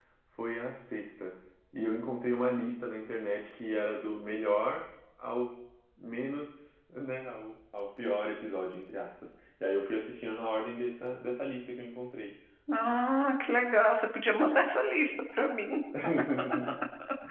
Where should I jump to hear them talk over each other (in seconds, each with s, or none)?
none